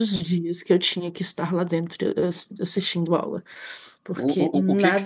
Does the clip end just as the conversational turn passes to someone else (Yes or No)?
Yes